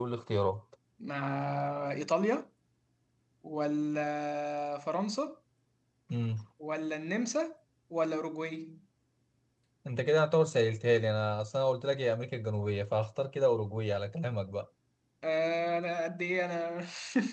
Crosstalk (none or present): none